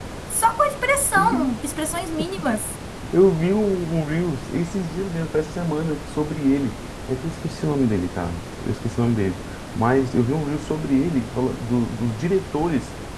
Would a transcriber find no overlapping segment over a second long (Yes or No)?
Yes